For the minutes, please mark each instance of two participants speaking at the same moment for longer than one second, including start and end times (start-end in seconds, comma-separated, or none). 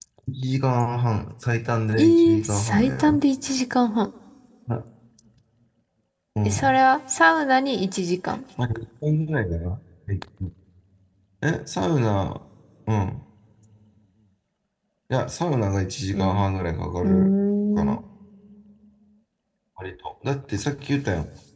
2.0-3.2